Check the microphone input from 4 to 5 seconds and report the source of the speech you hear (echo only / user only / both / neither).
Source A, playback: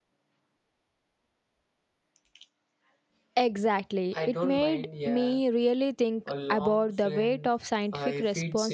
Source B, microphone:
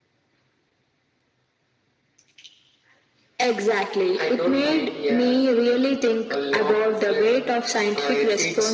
echo only